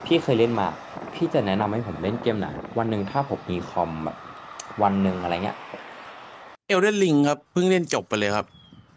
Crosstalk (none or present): none